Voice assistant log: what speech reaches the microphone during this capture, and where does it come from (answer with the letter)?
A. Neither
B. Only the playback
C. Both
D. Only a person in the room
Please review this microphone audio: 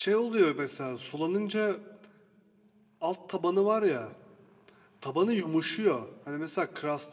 D